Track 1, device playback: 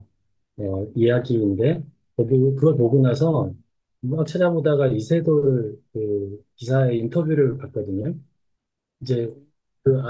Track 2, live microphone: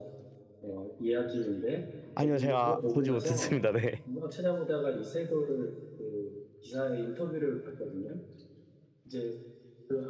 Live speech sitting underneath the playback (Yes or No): No